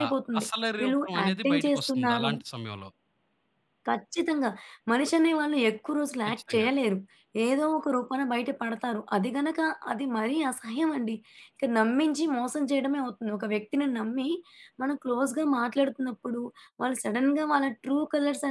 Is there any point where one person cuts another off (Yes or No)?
Yes